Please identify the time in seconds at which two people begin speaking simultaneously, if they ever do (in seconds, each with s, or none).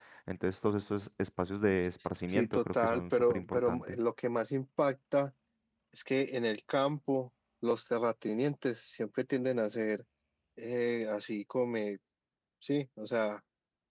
2.3 s